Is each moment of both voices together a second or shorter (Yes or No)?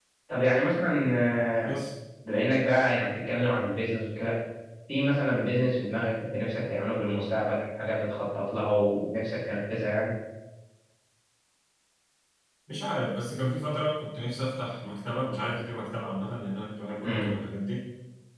Yes